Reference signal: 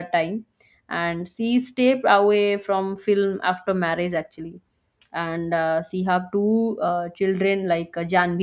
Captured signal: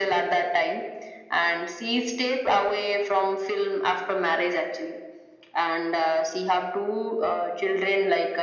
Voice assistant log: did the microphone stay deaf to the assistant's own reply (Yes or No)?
No